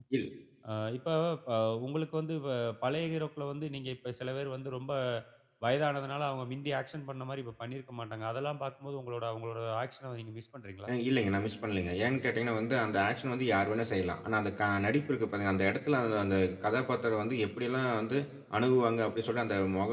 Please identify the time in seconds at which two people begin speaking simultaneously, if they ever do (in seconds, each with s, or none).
none